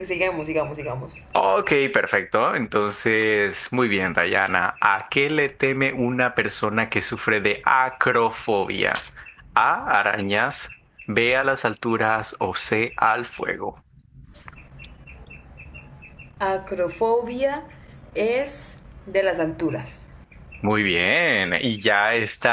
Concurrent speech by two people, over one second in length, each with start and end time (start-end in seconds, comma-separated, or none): none